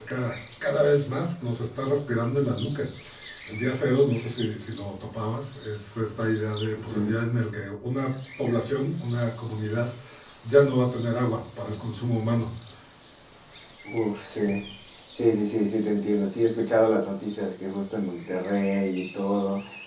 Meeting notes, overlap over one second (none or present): none